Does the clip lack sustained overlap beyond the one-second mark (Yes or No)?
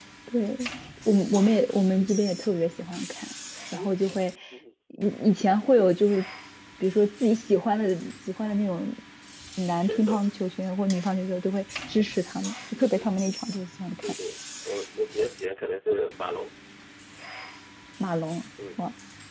Yes